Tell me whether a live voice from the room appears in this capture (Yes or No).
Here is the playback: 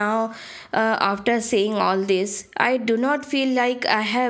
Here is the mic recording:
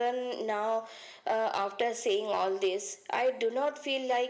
No